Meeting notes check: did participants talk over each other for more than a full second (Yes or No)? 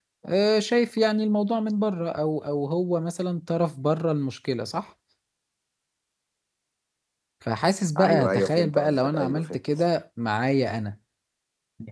Yes